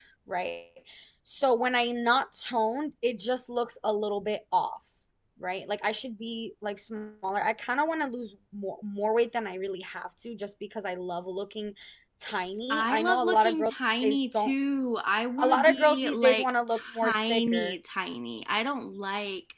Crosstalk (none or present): present